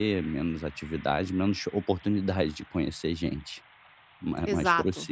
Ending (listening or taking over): taking over